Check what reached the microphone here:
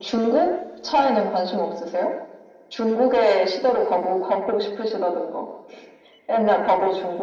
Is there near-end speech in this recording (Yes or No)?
No